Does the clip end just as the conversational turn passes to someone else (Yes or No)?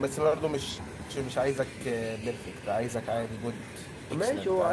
Yes